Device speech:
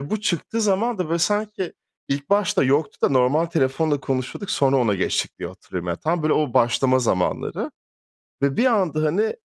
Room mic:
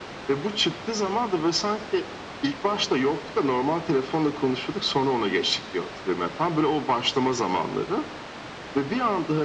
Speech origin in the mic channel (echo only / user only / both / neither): echo only